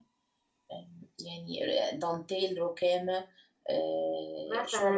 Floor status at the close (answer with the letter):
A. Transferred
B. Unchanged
A